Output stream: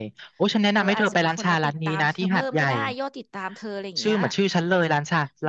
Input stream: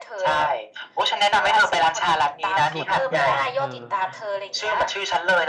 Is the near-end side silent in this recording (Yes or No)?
No